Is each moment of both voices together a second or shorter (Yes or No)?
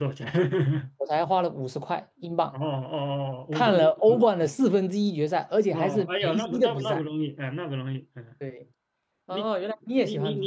No